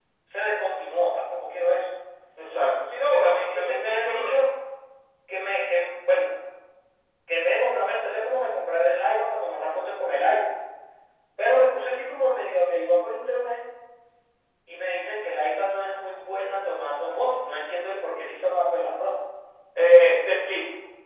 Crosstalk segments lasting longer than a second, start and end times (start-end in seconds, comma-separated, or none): 3.0-4.3